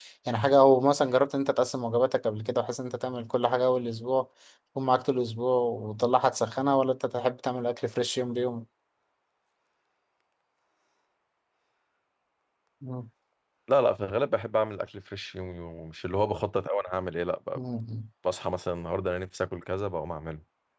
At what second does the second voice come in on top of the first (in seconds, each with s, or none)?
none